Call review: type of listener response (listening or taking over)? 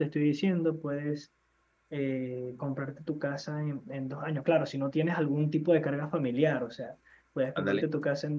listening